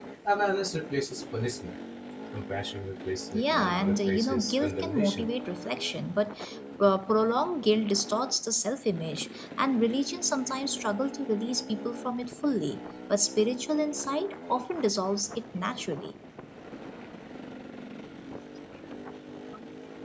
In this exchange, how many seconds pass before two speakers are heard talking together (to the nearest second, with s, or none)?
3 s